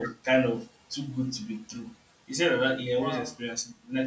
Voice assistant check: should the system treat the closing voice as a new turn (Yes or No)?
No